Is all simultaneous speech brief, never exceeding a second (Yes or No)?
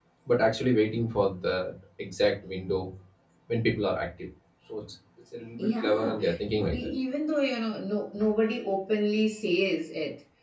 No